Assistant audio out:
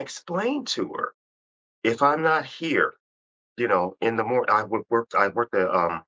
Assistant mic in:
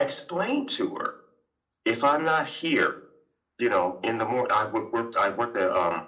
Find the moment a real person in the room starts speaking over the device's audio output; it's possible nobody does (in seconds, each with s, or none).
none